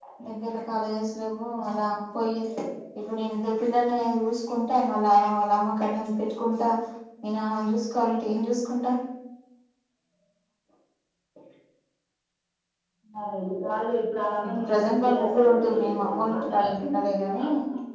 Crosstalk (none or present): present